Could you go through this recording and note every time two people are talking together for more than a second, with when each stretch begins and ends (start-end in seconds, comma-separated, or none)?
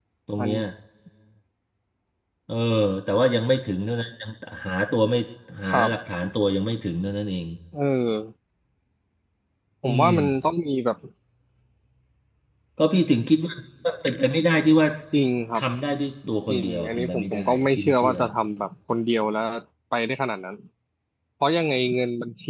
16.5-18.1